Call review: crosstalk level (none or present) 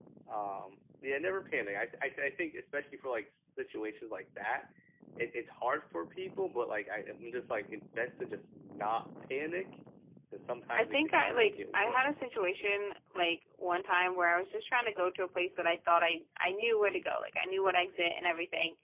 present